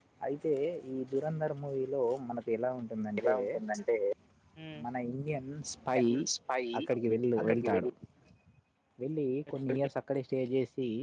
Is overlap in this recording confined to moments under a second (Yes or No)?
Yes